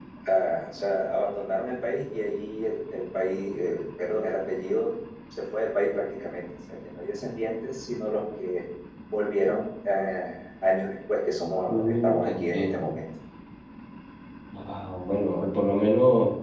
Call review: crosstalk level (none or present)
present